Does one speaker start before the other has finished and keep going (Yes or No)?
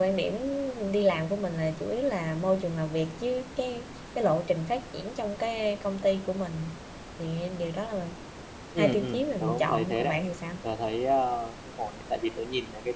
Yes